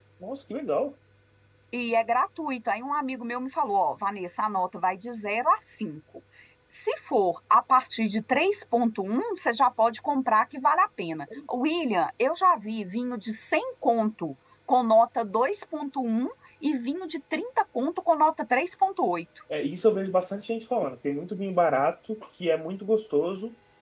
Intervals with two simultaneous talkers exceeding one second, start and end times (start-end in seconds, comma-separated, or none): none